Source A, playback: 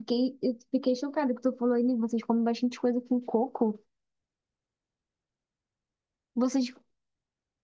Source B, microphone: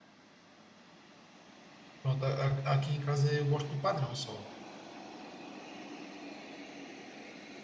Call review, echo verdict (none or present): none